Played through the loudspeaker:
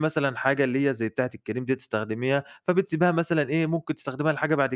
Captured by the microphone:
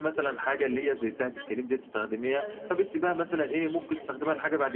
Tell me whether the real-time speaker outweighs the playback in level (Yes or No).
No